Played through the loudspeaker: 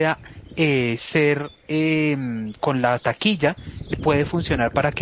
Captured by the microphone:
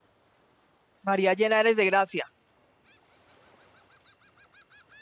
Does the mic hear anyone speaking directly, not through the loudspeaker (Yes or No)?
Yes